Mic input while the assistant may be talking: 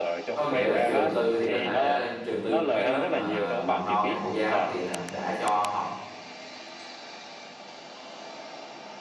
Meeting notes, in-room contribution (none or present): present